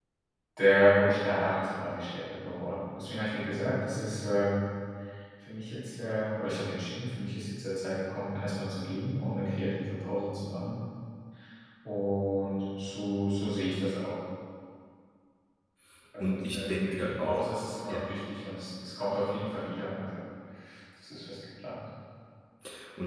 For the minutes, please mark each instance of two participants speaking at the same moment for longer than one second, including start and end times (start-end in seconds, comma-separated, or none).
16.2-17.4